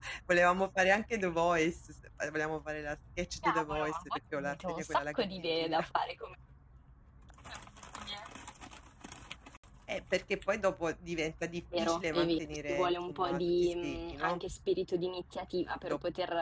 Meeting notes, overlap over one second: present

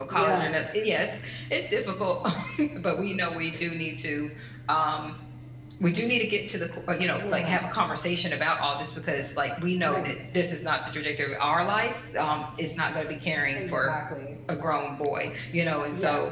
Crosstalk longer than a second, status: none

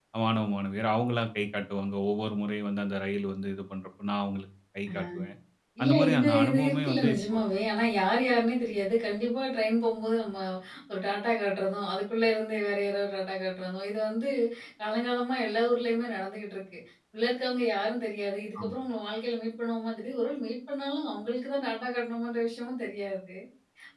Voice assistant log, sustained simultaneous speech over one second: present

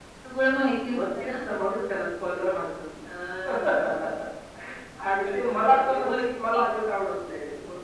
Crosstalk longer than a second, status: present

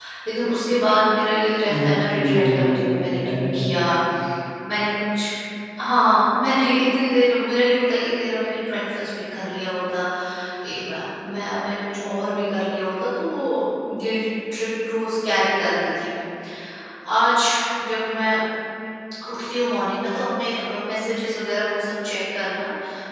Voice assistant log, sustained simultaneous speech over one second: present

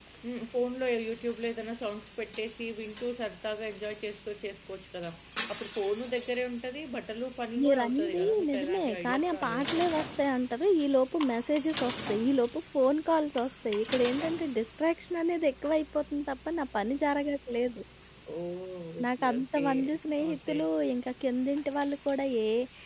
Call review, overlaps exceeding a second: present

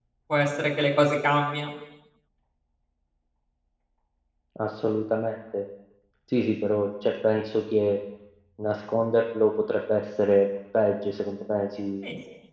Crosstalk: none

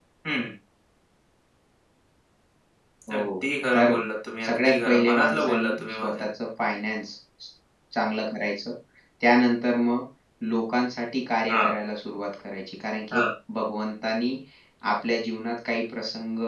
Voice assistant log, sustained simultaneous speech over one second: present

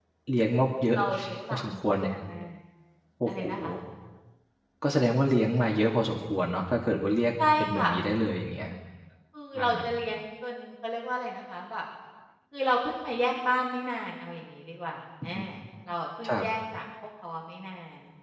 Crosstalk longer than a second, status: none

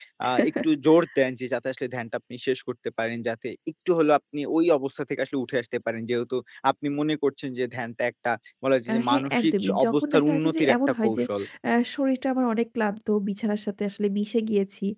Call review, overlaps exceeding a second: present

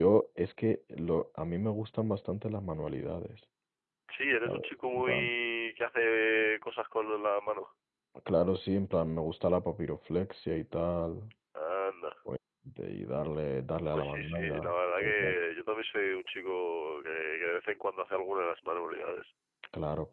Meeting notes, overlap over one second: present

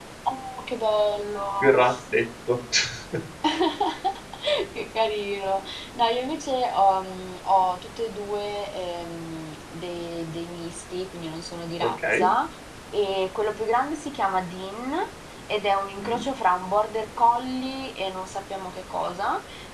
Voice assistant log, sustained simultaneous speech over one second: none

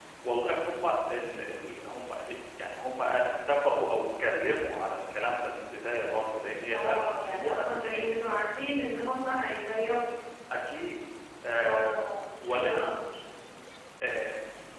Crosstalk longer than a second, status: present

